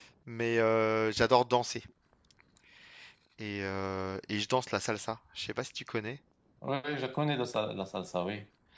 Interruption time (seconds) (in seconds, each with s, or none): none